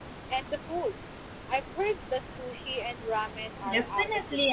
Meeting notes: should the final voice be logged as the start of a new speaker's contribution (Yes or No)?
Yes